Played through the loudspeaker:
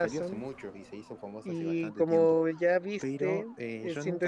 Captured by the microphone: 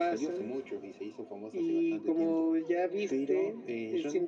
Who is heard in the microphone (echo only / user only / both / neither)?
echo only